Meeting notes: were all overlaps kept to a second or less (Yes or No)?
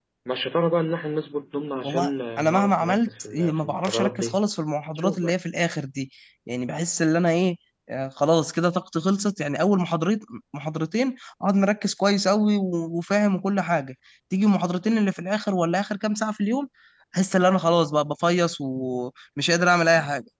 No